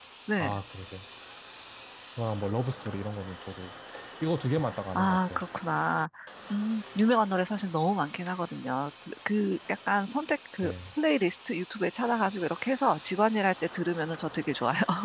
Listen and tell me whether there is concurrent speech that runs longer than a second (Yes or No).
No